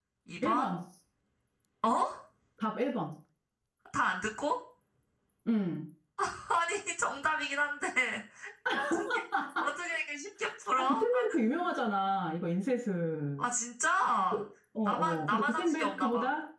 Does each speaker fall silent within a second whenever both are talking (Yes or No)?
No